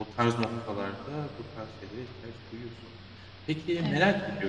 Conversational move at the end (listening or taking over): listening